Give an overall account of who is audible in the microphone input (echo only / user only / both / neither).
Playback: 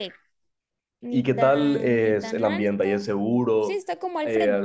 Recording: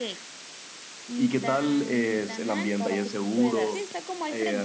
both